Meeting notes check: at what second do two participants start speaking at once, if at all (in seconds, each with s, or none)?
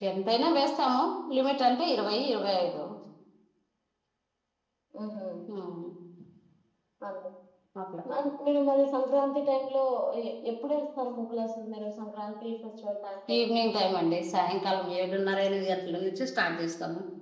none